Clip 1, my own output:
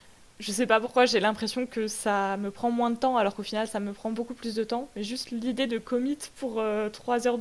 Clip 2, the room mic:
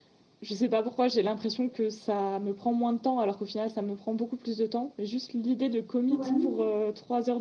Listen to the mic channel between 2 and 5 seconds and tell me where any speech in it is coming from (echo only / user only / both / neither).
echo only